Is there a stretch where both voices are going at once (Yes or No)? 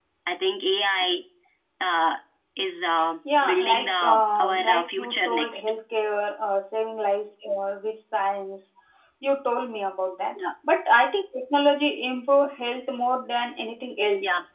Yes